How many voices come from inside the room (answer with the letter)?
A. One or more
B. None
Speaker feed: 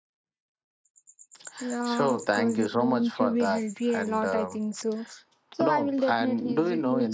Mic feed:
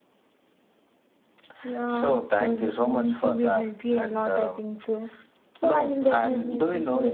B